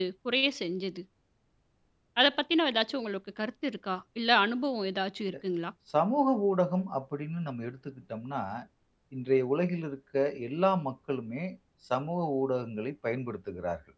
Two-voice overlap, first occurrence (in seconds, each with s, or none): none